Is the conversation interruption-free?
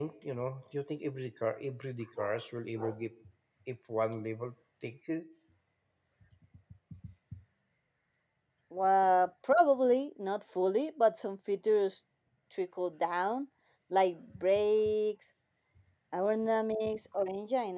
Yes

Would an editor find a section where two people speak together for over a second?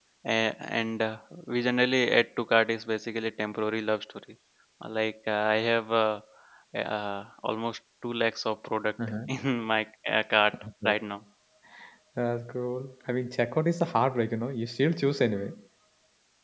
No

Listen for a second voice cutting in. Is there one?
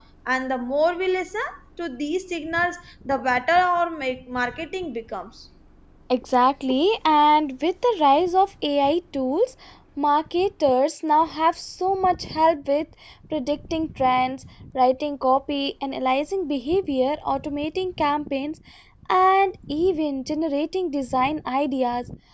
No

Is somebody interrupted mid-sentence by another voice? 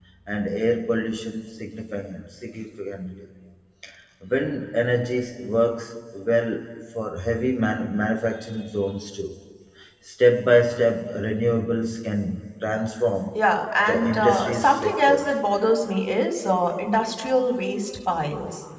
Yes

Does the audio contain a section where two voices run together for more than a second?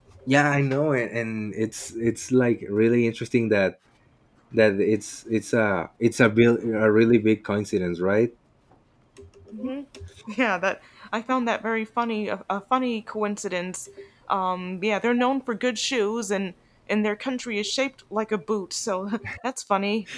No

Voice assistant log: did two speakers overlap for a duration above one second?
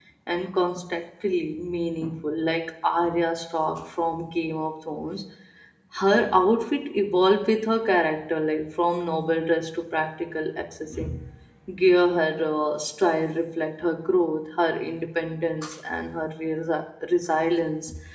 No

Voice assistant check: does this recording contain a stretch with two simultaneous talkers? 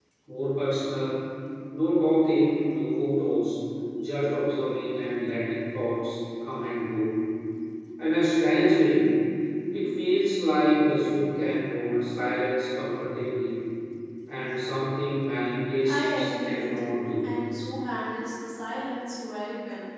Yes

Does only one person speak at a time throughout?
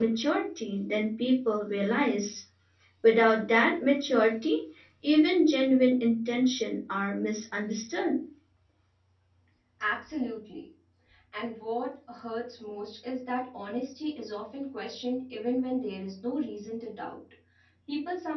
Yes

